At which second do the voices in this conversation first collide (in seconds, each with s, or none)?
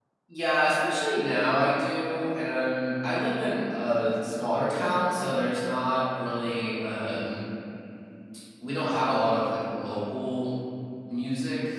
none